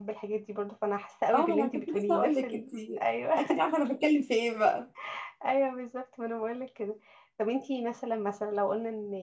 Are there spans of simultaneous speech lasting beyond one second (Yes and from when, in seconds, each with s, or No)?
Yes, from 1.3 s